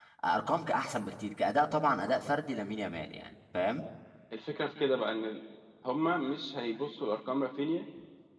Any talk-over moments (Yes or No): No